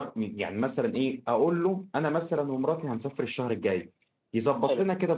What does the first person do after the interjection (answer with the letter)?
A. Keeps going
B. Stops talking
A